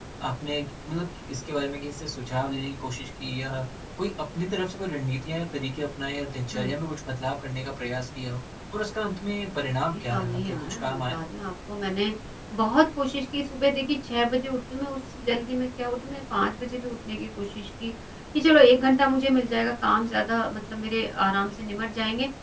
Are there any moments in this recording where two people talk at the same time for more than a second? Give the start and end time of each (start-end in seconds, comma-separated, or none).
9.9-11.2